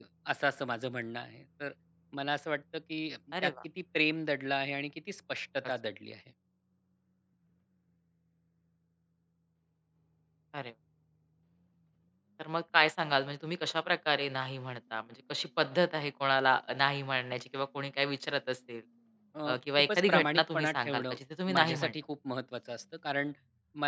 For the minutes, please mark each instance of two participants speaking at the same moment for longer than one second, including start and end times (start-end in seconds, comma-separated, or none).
19.4-21.2